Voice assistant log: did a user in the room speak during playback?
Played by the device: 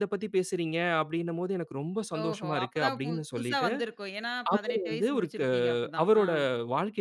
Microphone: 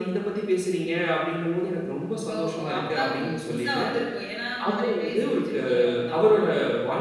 No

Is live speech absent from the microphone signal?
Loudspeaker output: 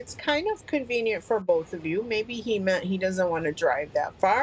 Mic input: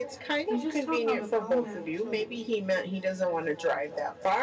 No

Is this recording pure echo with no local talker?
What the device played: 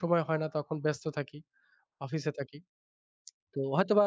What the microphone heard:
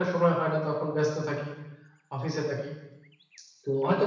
Yes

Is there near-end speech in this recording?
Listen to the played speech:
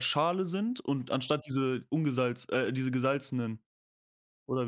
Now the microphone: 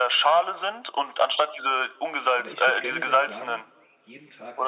Yes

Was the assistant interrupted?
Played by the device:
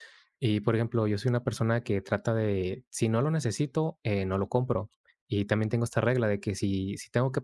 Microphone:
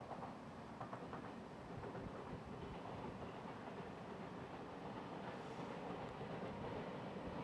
No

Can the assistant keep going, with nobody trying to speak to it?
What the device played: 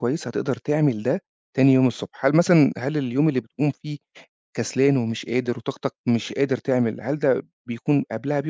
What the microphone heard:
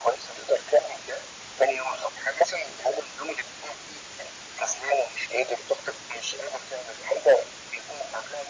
Yes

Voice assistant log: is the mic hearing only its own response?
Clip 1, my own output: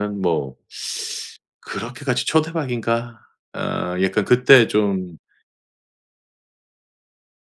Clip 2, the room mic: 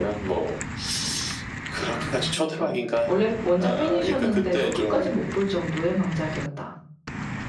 No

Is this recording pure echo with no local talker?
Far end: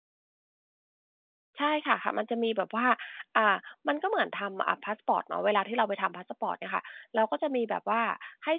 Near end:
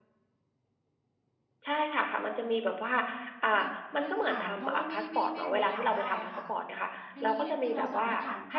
No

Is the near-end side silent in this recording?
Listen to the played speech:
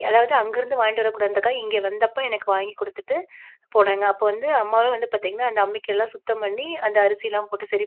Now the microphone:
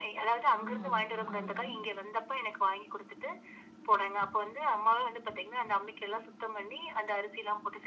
No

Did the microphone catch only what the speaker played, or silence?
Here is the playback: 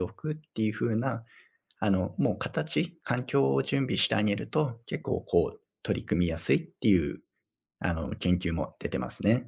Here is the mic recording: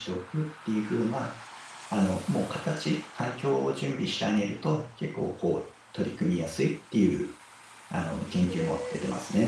No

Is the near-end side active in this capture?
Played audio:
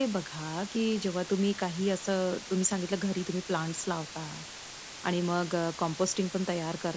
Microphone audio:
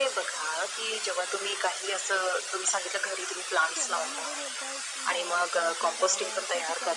Yes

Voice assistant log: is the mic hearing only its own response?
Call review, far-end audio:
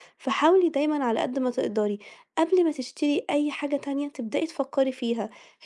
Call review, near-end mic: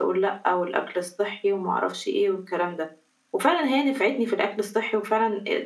No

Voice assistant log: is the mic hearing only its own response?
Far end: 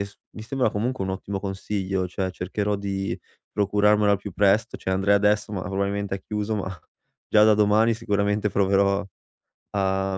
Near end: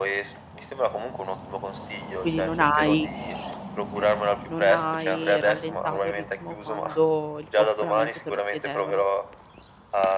No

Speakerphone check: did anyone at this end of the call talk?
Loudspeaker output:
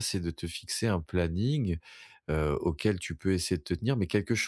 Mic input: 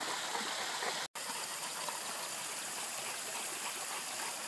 No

